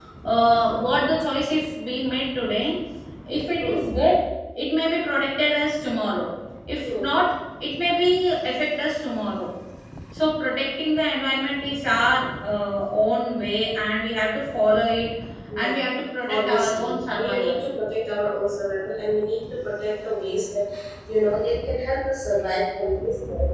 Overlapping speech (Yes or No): Yes